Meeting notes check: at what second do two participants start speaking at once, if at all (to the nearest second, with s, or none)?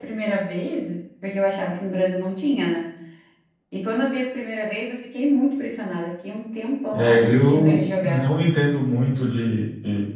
7 s